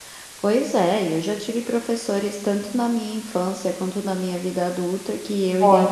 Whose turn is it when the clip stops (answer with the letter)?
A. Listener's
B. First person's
B